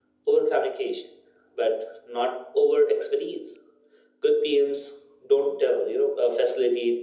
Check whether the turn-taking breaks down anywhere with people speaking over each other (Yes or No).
No